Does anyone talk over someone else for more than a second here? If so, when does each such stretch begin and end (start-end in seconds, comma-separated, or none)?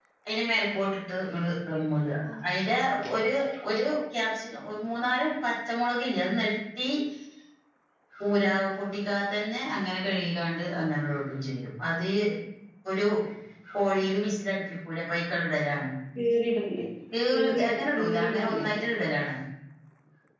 17.3-18.6